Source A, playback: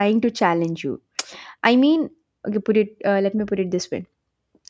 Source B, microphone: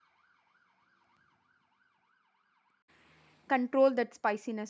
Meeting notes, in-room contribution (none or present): present